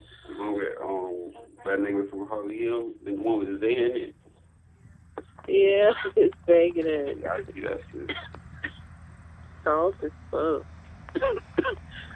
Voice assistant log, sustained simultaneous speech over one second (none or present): none